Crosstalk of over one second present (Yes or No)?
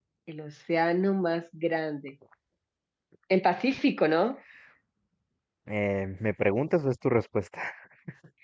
No